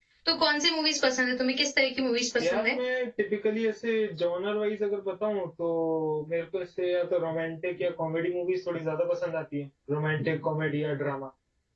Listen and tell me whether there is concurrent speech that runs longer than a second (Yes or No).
No